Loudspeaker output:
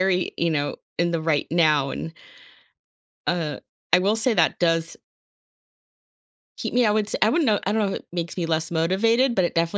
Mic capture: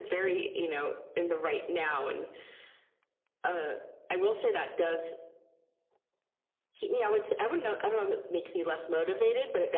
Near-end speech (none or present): none